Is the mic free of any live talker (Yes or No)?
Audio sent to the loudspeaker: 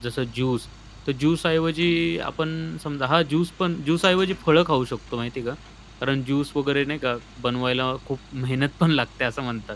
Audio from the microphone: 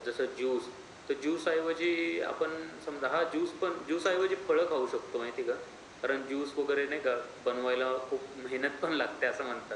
Yes